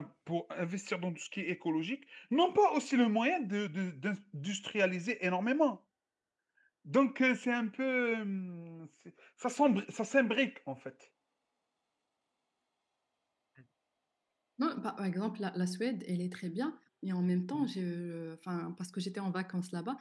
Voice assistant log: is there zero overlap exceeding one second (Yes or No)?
Yes